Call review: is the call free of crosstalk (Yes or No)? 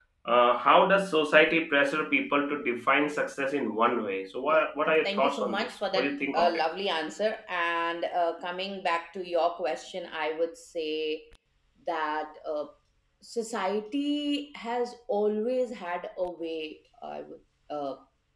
No